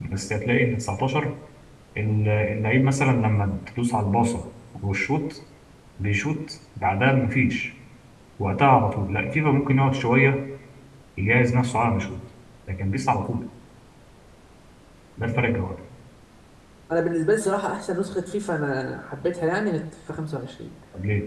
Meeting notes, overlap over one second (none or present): none